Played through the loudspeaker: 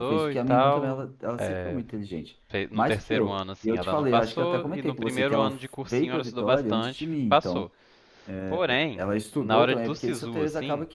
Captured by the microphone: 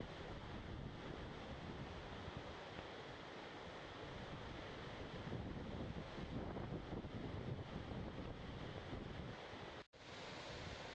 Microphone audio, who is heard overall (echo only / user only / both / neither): neither